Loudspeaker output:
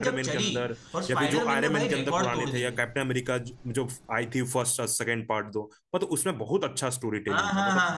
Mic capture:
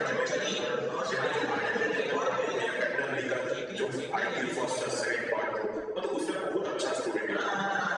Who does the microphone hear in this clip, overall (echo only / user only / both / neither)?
both